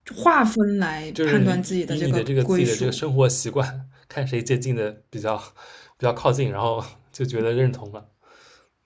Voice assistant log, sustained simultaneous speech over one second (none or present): present